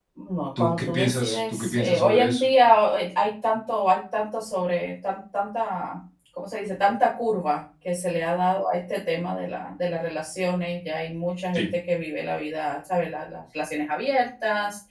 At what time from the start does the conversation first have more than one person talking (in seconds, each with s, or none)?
0.6 s